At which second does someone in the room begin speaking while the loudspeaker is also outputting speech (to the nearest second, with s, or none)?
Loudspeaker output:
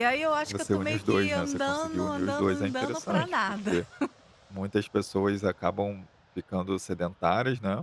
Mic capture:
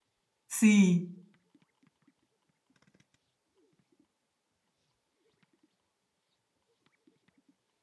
0 s